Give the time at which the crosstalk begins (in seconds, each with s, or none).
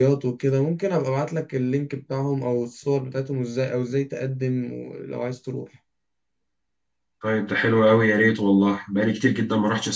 none